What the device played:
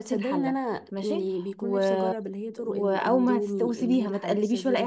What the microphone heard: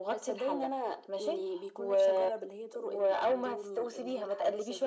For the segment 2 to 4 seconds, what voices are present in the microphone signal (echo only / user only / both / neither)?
echo only